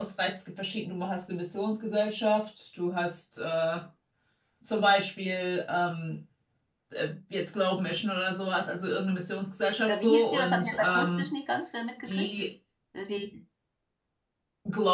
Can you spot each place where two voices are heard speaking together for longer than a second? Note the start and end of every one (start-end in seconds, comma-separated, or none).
9.9-11.3